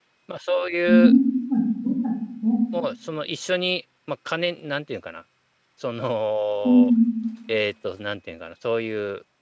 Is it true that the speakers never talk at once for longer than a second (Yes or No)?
Yes